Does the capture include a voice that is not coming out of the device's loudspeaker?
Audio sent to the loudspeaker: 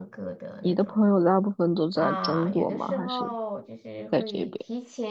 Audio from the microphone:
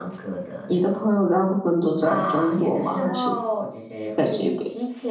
No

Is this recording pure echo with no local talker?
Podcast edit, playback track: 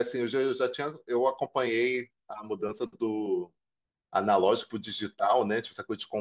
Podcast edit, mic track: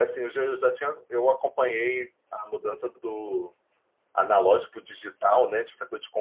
Yes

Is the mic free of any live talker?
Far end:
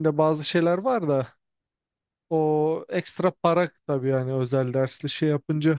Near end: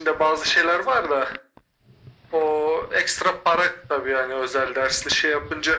Yes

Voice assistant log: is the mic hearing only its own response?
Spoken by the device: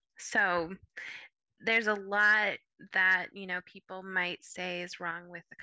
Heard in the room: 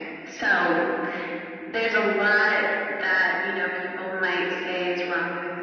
Yes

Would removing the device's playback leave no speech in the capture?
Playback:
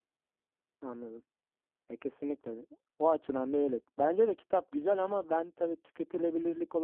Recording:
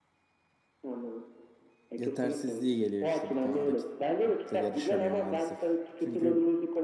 No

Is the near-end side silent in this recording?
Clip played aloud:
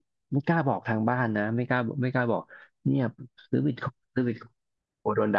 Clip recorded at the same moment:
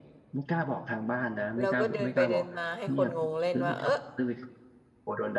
No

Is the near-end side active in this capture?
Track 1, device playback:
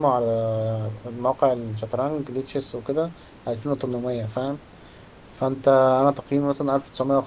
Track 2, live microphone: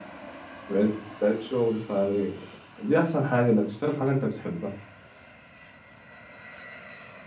Yes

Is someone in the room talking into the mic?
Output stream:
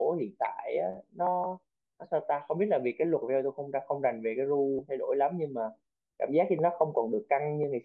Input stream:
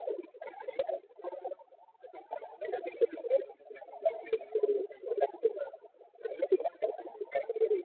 No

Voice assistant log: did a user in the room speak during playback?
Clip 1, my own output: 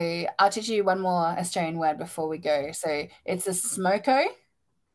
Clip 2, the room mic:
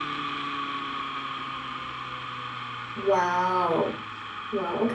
Yes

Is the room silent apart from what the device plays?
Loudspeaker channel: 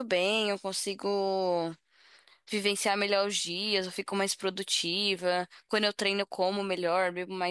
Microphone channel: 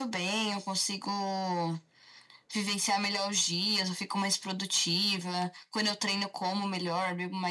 Yes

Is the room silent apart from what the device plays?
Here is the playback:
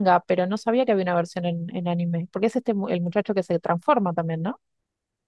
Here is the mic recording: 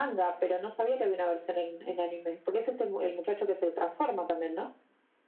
Yes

